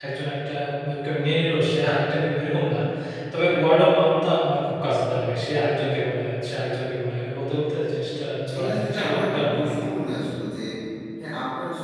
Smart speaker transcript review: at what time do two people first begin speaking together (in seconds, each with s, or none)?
8.5 s